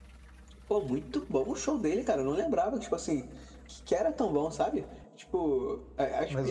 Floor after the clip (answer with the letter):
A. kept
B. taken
B